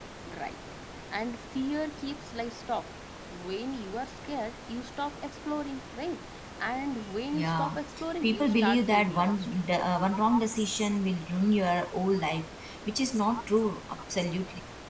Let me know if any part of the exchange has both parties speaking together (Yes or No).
Yes